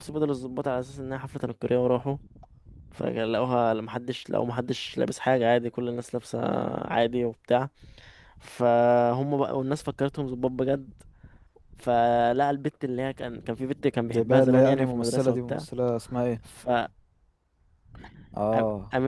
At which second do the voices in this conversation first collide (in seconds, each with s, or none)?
14.1 s